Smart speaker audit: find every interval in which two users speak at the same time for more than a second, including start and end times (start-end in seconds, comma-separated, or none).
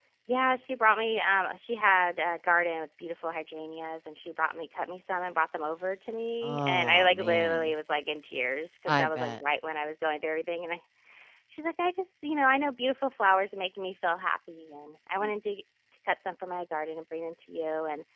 6.4-7.7